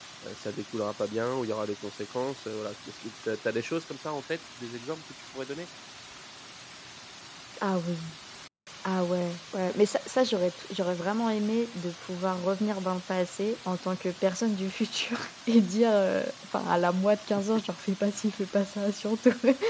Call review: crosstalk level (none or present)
none